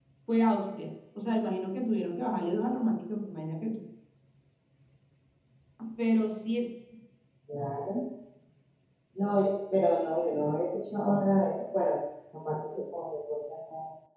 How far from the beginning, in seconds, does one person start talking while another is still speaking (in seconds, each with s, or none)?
none